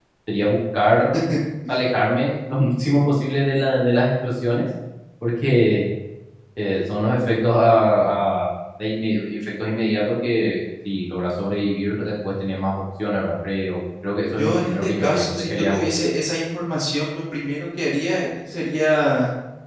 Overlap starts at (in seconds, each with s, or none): 14.3 s